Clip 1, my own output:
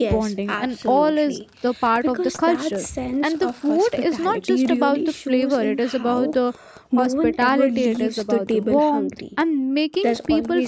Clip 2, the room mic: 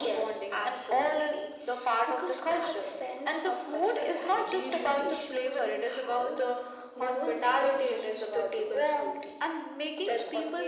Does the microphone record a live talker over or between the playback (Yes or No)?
No